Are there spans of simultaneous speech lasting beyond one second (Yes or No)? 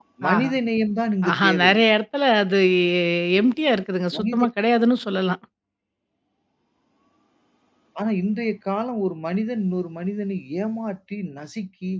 No